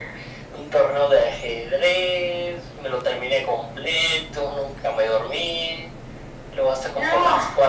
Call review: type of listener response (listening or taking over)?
listening